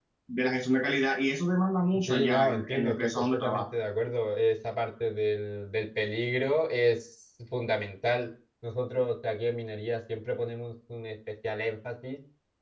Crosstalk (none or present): present